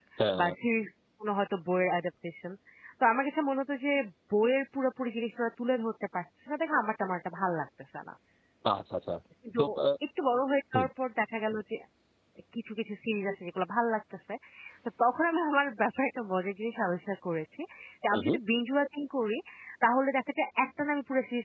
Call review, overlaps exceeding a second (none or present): none